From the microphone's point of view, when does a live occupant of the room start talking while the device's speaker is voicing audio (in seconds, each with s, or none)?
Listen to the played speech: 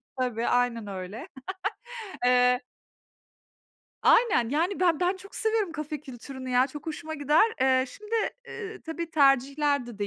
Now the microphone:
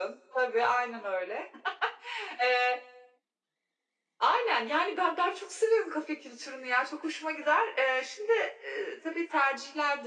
none